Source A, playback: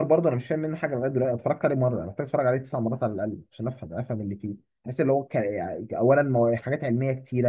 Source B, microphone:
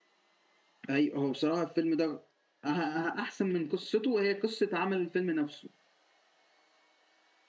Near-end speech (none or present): present